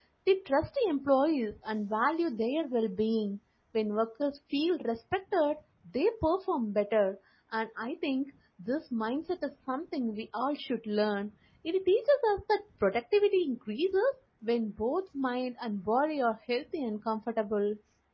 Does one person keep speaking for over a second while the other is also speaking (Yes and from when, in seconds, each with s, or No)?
No